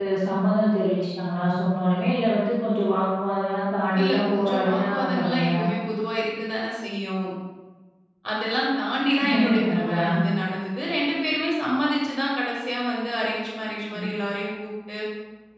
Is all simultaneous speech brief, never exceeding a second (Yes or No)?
No